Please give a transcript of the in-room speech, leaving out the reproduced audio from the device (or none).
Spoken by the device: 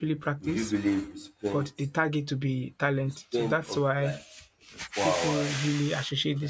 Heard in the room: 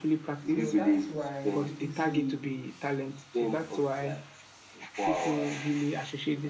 So that's why people see,